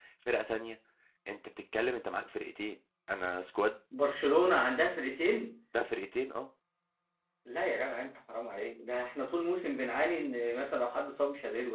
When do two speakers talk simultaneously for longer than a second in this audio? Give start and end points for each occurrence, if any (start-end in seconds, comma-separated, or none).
none